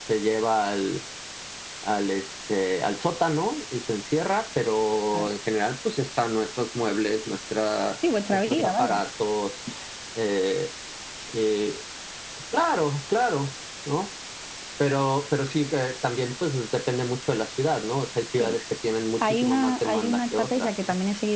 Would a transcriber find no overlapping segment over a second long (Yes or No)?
No